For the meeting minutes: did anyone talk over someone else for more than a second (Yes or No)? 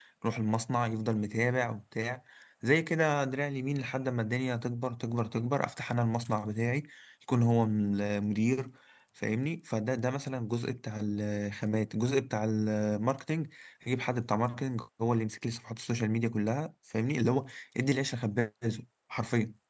No